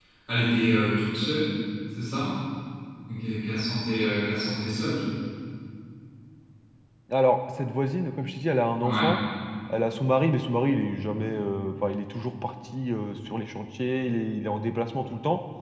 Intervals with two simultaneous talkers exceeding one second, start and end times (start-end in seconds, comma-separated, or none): none